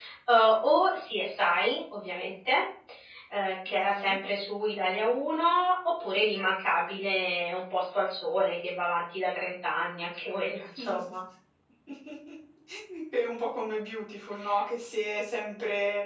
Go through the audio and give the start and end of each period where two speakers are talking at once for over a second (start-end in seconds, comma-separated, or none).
none